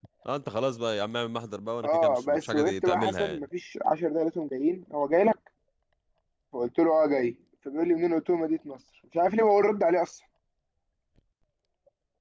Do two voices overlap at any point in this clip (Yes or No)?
Yes